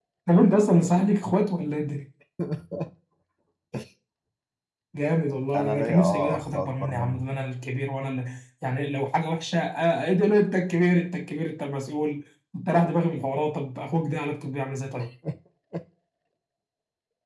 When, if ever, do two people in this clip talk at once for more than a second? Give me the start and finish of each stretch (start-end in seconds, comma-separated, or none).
5.6-7.2